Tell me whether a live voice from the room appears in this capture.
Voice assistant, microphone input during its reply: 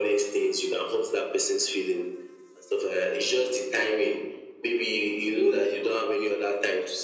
No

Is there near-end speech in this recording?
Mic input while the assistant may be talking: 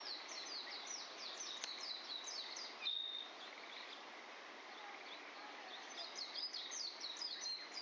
No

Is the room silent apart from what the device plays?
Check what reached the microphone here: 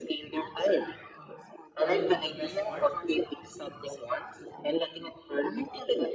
No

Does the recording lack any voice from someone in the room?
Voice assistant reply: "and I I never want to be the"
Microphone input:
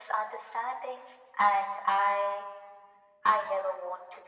Yes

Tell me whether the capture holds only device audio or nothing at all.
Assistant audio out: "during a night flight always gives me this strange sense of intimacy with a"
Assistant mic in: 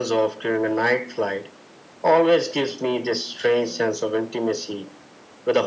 Yes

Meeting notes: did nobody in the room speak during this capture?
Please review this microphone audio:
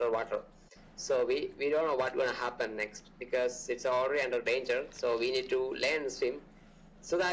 Yes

